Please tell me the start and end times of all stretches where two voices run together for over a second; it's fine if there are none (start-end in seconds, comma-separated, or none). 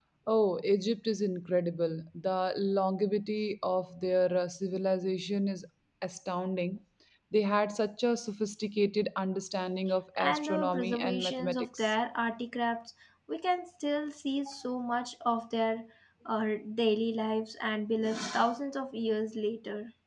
10.2-11.9